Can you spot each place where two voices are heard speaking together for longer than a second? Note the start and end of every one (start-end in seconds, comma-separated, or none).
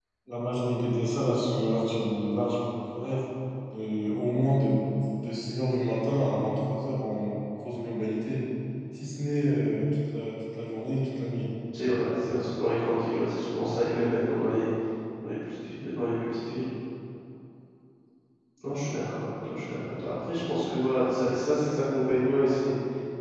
none